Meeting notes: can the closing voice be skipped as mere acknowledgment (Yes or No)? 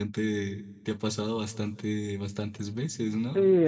No